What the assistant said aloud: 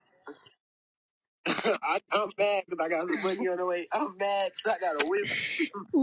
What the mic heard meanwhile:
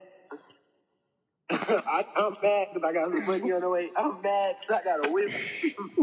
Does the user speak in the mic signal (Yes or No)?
No